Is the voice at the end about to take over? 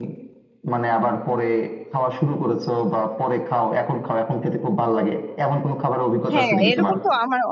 Yes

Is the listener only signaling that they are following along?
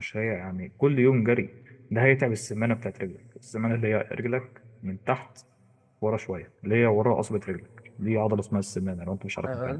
No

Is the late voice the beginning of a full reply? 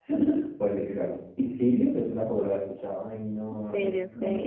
Yes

